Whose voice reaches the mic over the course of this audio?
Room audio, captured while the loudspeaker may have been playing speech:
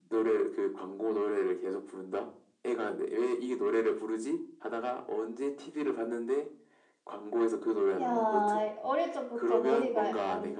both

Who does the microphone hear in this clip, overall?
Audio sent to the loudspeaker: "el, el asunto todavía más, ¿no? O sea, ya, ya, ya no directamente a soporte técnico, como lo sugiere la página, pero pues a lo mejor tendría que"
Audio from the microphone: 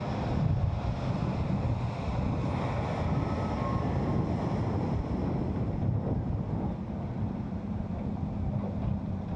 neither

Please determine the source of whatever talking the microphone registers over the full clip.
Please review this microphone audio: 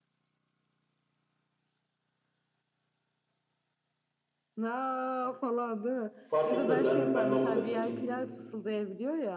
both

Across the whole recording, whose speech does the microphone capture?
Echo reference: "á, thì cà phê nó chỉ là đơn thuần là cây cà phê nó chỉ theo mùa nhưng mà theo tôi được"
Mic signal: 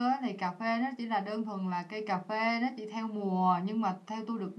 echo only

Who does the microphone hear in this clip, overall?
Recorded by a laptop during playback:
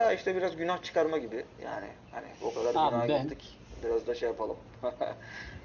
both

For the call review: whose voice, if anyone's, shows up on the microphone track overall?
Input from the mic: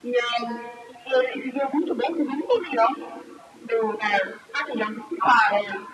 echo only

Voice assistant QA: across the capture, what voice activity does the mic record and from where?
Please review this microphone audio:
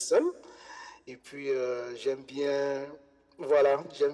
echo only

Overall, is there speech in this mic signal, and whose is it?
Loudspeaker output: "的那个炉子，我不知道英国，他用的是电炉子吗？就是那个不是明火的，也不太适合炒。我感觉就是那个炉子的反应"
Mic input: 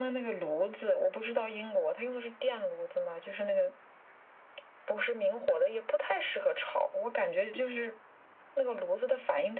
echo only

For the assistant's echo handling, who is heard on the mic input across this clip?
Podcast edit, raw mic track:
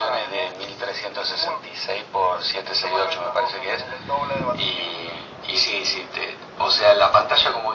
echo only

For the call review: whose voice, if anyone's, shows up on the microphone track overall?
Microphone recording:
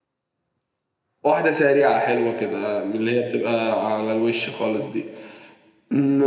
user only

